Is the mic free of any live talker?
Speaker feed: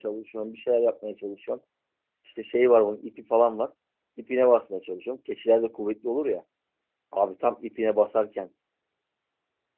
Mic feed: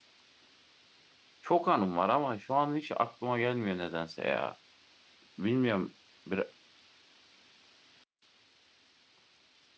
No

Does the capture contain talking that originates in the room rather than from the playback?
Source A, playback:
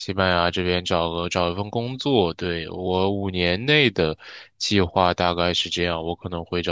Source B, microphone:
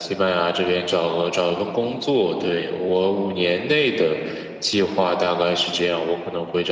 No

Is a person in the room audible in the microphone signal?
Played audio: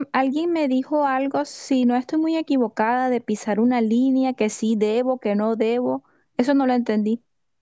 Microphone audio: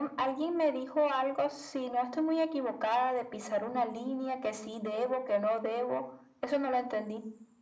No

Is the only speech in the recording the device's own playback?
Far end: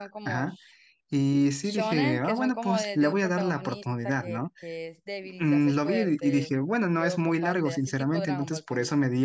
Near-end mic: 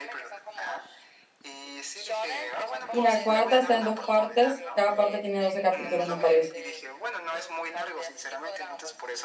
No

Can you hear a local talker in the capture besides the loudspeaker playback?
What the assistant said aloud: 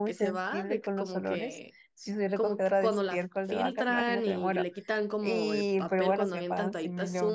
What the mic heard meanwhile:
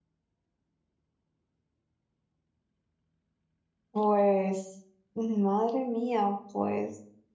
Yes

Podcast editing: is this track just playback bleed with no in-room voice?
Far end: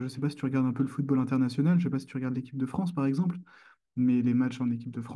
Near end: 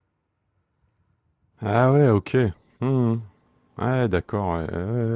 No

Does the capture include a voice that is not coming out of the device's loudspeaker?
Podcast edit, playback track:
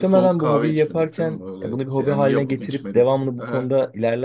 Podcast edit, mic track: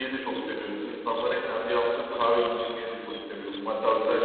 Yes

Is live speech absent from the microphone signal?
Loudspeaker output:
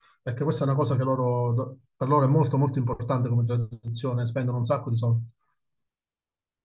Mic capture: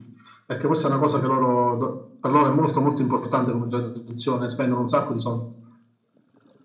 Yes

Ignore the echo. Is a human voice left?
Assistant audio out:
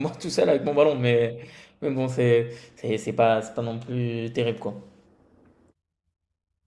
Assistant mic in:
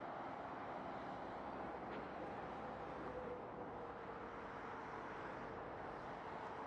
No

